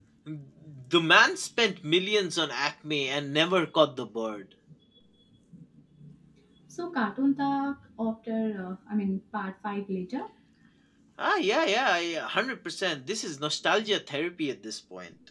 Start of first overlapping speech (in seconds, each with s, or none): none